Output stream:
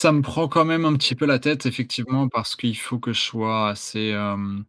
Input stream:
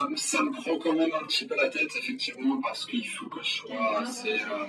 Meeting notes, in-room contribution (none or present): present